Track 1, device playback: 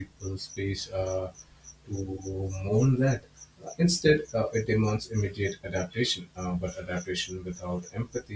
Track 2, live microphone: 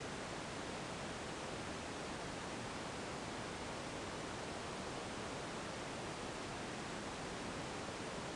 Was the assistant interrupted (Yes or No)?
No